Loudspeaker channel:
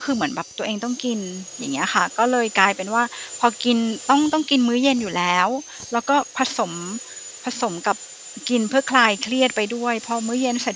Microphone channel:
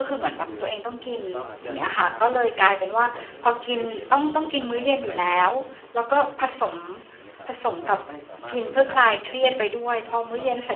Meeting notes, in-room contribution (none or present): present